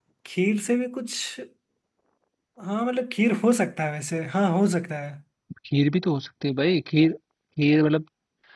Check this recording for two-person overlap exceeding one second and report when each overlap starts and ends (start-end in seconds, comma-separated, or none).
none